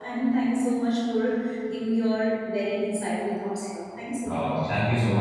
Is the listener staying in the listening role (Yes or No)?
No